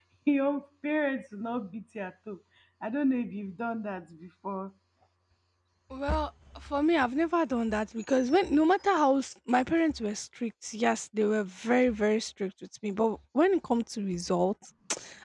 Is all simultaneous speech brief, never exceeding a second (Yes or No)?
Yes